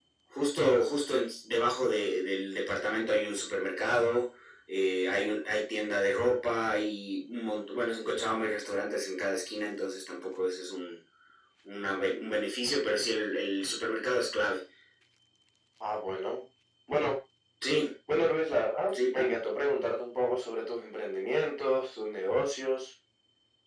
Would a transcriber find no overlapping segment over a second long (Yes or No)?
Yes